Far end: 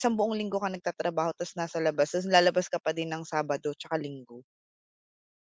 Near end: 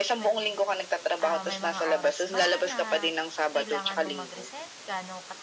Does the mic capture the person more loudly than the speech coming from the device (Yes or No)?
No